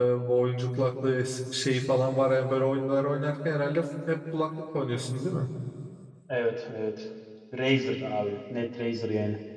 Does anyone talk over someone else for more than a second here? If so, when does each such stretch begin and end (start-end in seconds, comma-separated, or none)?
none